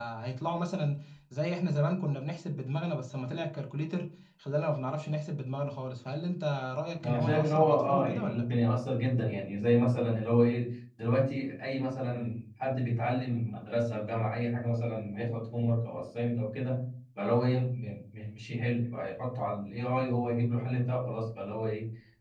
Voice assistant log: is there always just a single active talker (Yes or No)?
No